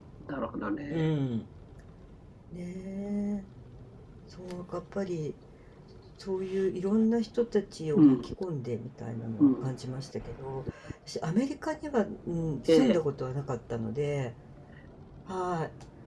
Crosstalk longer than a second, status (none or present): none